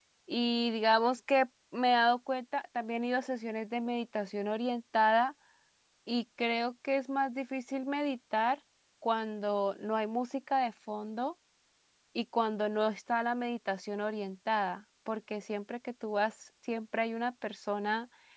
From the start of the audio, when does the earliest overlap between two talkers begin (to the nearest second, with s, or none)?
none